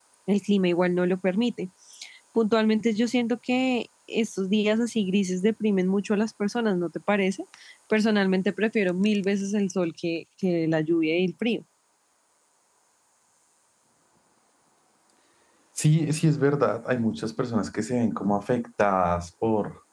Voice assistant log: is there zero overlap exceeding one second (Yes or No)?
Yes